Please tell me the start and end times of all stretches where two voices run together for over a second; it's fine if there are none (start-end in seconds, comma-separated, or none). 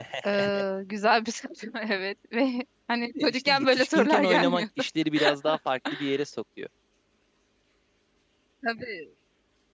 3.0-4.6